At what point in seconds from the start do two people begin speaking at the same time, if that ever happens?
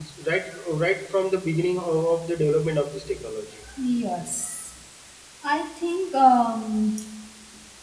none

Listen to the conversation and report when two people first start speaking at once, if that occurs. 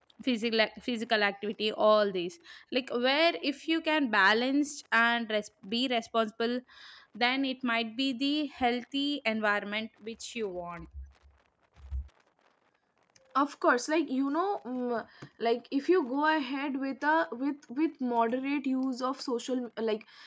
none

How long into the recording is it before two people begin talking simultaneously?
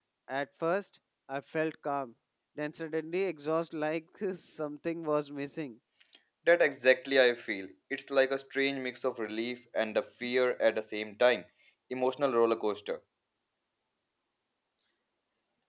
none

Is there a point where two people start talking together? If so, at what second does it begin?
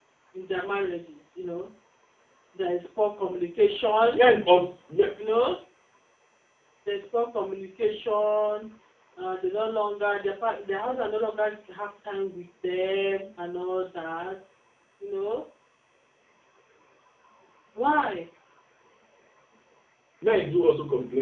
none

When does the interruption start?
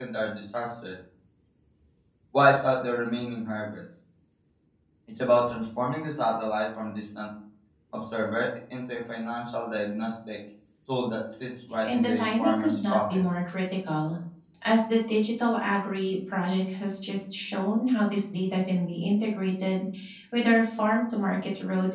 11.8 s

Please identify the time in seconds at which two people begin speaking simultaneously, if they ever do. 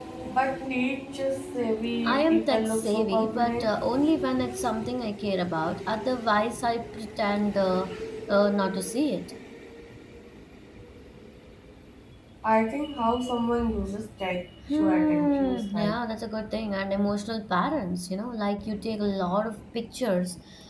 2.0 s

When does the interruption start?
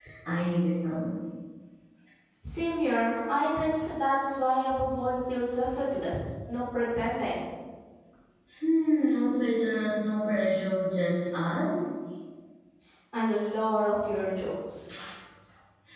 none

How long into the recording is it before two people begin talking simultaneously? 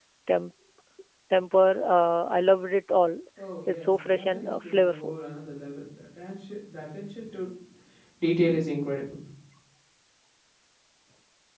3.7 s

